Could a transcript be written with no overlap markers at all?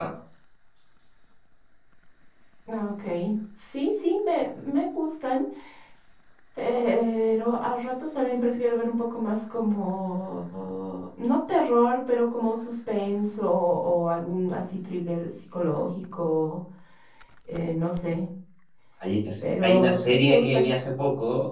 No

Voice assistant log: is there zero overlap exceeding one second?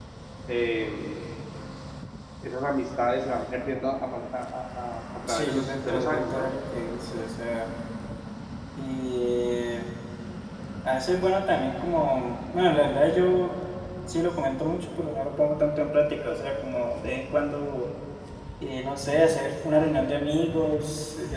No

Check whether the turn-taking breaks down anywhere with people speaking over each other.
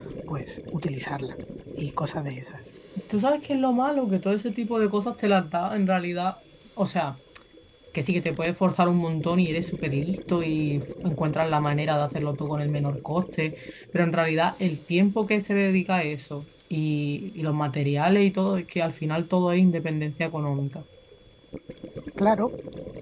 No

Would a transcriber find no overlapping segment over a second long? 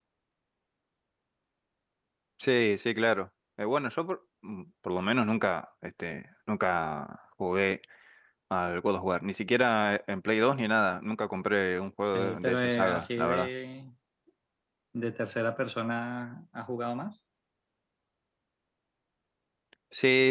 No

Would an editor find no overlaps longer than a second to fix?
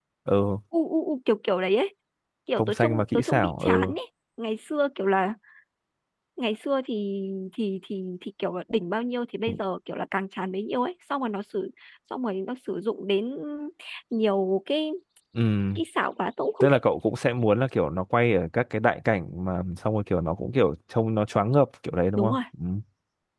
No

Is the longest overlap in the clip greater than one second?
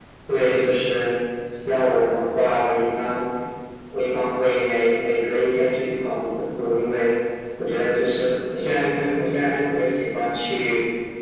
No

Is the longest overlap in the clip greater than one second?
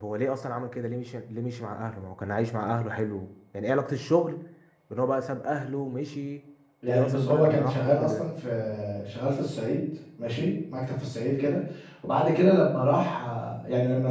Yes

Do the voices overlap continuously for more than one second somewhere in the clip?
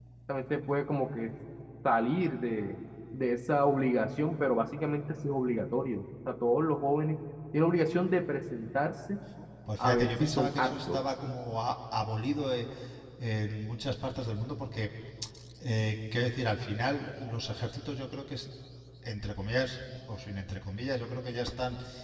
Yes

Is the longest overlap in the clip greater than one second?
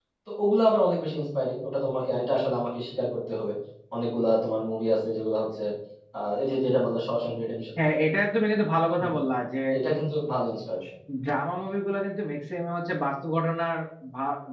No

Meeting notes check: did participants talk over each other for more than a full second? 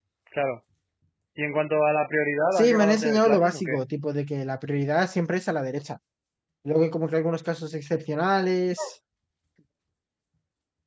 Yes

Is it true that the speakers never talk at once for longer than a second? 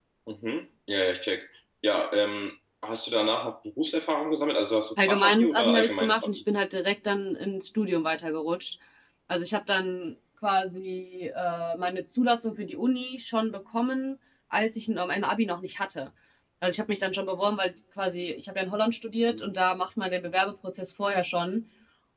No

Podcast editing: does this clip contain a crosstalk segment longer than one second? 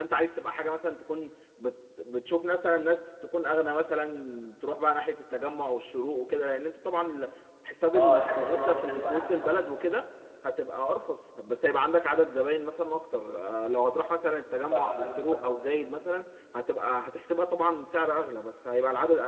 Yes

